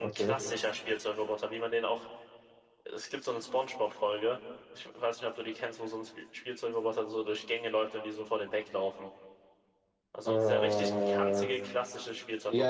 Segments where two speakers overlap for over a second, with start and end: 10.3-11.5

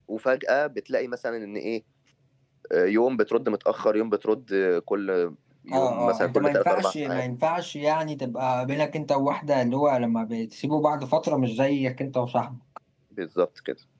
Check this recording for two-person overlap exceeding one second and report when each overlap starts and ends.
5.7-7.2

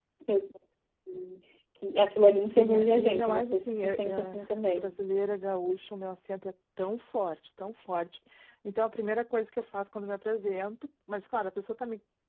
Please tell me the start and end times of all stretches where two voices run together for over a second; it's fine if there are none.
2.4-4.4

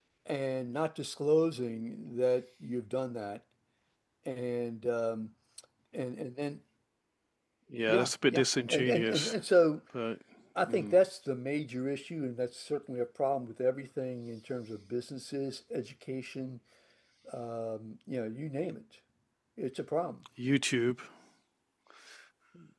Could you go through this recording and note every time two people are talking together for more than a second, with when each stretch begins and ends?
7.9-9.4

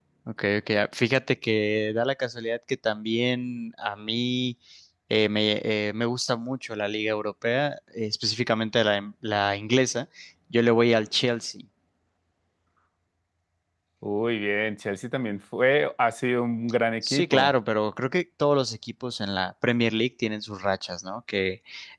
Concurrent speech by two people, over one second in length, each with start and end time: none

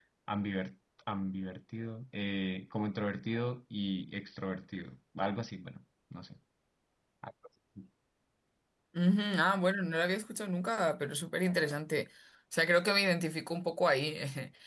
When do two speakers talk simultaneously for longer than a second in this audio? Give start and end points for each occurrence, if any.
none

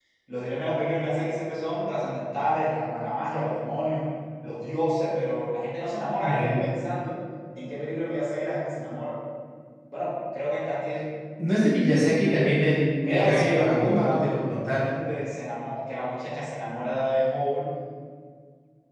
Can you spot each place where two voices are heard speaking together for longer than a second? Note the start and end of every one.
13.1-14.8

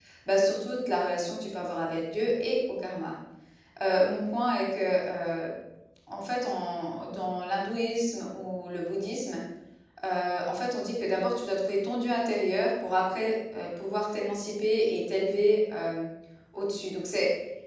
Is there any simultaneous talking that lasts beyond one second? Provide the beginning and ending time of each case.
none

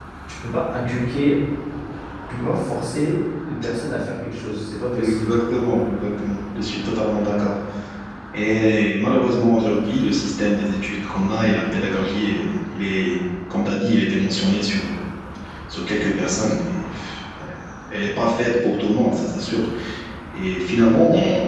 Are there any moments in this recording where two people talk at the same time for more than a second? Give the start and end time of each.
none

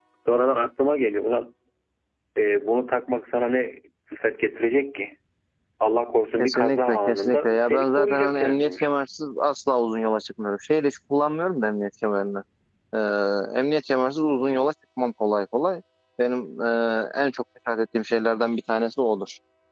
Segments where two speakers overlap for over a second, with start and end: 6.4-8.9

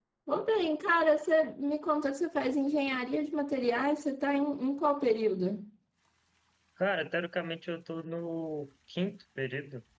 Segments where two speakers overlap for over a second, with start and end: none

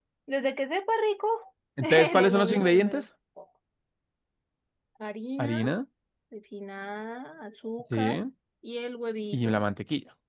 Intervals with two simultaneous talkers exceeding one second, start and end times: 1.8-3.0

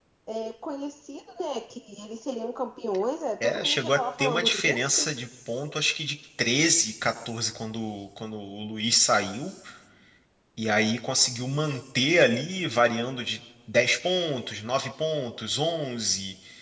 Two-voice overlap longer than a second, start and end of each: 3.4-5.1

